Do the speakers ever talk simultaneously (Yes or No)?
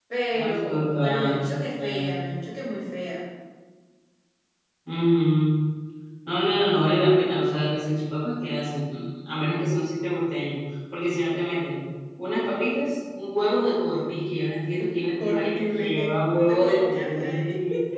Yes